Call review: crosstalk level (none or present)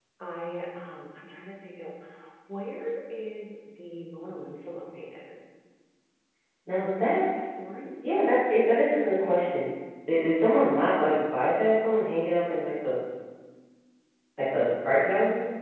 none